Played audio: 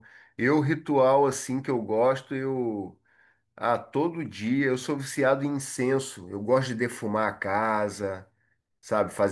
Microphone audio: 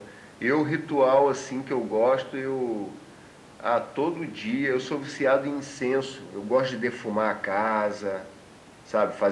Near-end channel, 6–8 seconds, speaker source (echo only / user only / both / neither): echo only